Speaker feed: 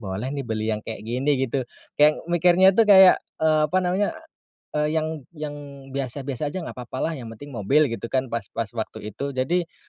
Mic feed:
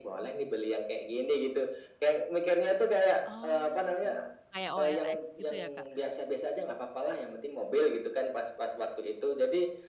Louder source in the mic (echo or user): echo